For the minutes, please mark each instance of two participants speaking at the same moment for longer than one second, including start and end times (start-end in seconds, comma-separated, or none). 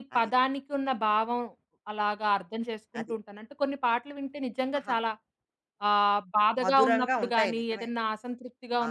6.6-7.9